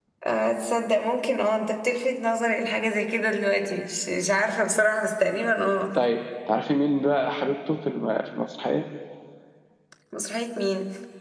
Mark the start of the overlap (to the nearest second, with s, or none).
none